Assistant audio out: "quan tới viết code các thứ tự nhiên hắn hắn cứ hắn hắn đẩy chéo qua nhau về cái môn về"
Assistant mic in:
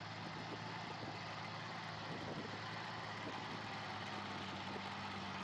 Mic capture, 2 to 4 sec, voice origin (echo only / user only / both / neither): neither